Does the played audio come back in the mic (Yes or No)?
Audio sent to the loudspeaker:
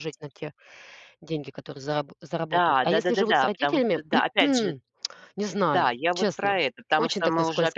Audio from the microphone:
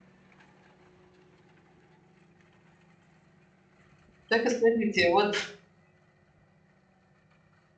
No